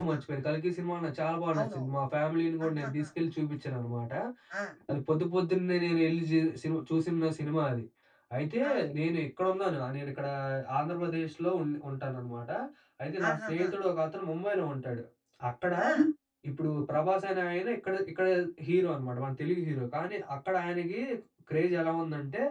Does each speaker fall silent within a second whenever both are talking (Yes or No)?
Yes